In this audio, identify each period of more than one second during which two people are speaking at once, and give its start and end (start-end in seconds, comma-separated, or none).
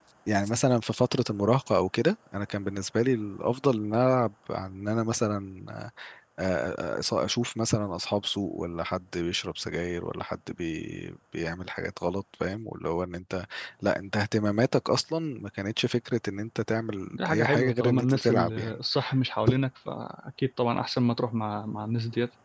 17.1-18.8